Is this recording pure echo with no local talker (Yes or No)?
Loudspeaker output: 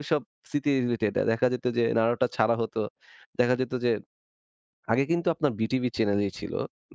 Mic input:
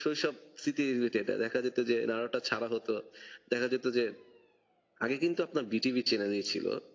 Yes